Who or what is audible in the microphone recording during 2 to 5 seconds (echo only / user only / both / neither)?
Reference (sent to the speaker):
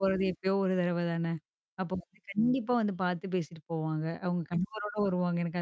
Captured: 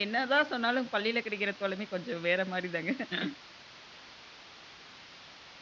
user only